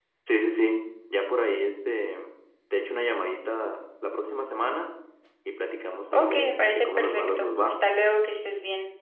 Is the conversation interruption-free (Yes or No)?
No